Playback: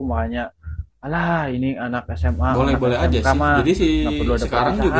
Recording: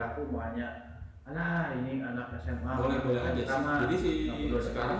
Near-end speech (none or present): none